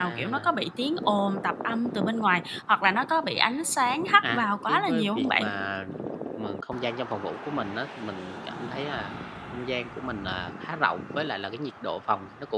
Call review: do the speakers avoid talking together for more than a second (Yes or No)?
No